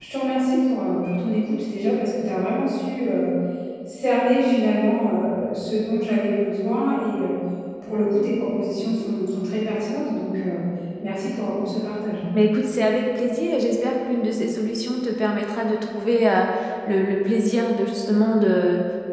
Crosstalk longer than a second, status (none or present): none